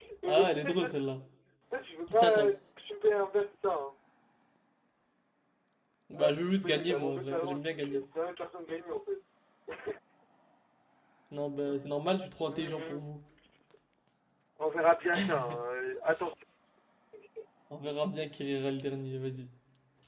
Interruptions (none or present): present